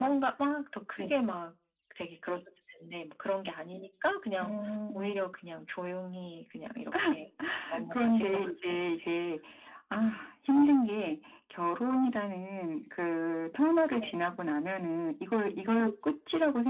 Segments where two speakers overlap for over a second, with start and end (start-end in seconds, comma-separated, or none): 7.9-9.1